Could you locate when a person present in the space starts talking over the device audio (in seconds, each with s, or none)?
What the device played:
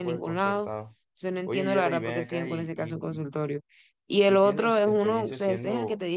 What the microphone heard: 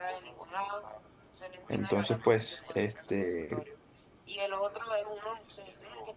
1.7 s